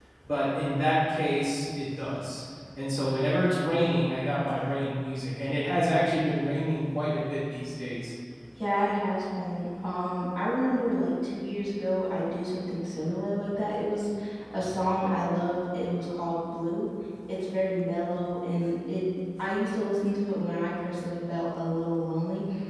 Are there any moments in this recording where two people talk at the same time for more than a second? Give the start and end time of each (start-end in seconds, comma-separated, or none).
none